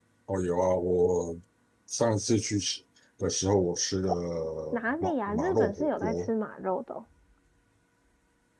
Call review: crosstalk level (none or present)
present